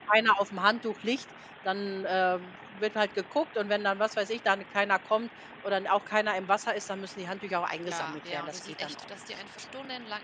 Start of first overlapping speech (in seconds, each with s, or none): 7.8 s